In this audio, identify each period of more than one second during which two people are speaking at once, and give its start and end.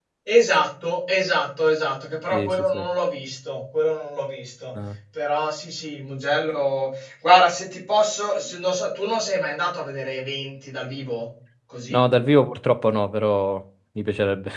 none

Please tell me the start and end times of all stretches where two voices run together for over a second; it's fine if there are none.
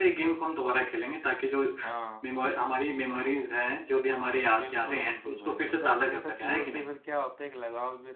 4.6-6.8

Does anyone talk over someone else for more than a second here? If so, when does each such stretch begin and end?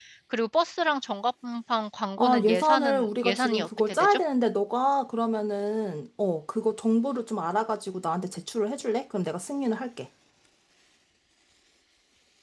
2.2-4.2

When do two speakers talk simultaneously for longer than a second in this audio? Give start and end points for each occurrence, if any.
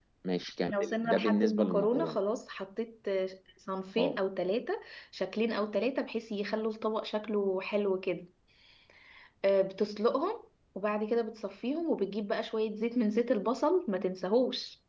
0.7-2.2

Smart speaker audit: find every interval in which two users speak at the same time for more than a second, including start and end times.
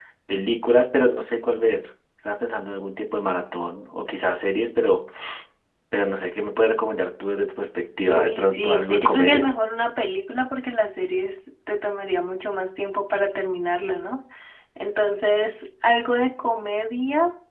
8.1-9.5

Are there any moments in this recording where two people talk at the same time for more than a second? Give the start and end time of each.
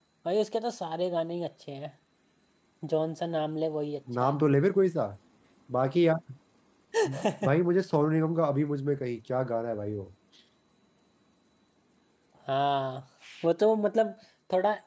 none

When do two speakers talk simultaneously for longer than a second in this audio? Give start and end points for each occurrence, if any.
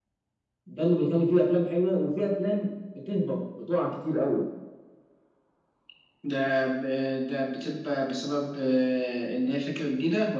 none

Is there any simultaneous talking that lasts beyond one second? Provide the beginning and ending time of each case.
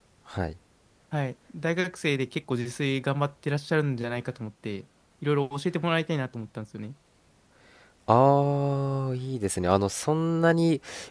none

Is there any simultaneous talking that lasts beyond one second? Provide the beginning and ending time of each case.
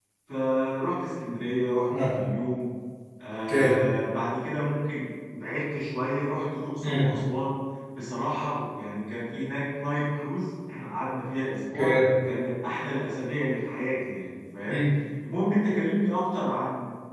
none

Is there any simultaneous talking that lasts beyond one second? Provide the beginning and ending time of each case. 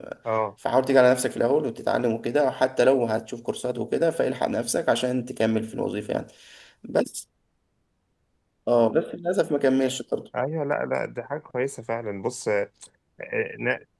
none

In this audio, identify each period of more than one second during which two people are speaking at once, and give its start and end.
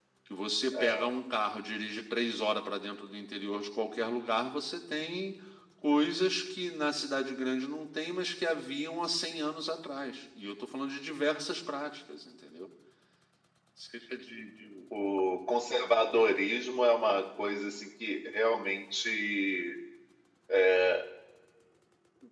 none

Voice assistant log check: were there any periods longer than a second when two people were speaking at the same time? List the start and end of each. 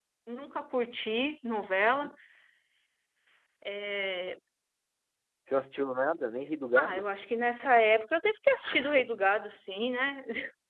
none

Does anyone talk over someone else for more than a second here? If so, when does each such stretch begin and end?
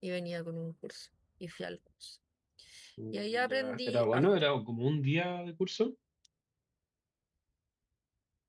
3.1-4.5

